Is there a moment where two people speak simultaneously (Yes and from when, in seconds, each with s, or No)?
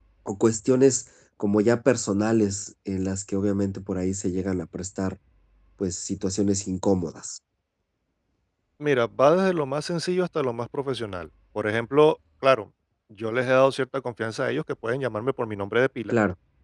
No